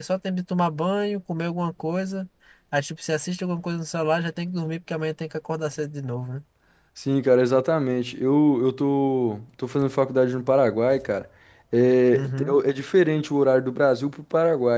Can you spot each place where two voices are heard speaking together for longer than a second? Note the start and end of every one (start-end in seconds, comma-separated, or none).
none